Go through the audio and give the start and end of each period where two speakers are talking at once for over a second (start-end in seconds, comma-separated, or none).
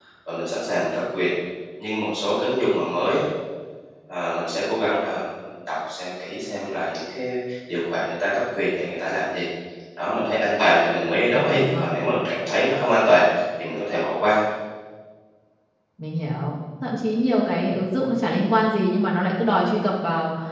none